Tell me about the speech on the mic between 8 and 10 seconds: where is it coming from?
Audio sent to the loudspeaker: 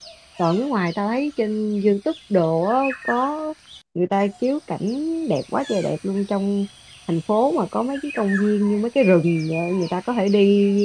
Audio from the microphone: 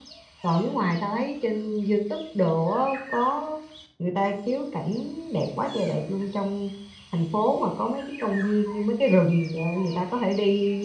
echo only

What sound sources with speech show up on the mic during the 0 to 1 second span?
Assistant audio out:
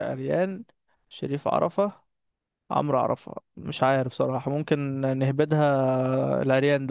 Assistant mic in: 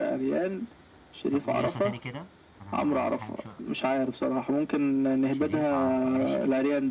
echo only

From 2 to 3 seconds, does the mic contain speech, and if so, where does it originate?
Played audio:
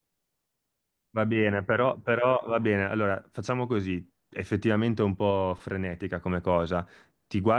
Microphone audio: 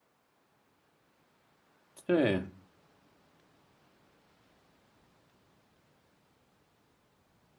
user only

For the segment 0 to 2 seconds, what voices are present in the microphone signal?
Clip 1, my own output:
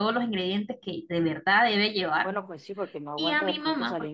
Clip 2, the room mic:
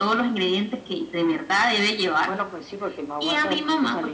echo only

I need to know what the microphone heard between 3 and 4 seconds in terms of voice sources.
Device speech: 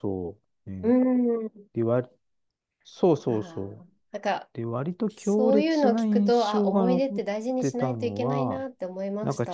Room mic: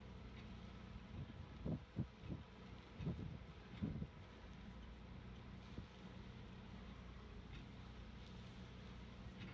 neither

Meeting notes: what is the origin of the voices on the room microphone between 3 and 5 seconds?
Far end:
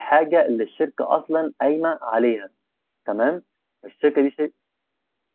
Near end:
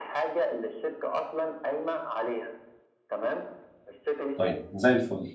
both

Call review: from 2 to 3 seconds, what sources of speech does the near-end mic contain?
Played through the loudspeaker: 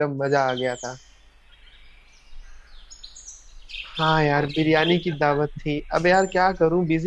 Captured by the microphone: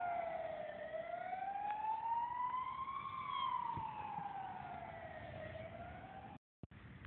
neither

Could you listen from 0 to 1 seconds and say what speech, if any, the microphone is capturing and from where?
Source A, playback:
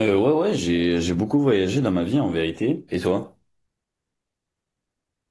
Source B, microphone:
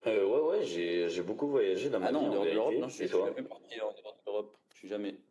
echo only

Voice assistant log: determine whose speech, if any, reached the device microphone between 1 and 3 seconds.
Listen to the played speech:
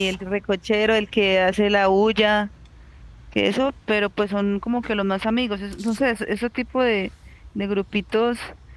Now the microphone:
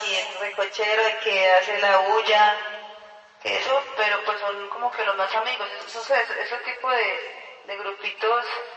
echo only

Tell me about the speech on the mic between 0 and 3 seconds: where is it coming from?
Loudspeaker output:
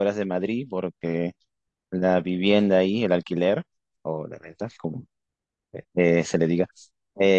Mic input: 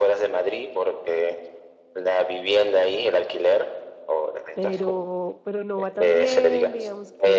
echo only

